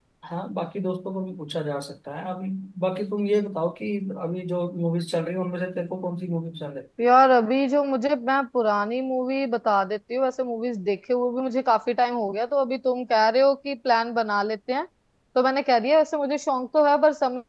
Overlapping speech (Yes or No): No